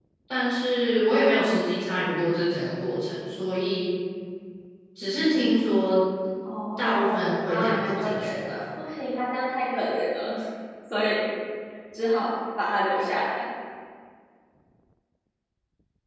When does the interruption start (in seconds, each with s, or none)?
6.8 s